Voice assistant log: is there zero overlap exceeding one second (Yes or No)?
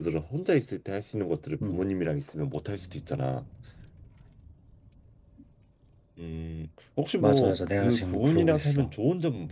No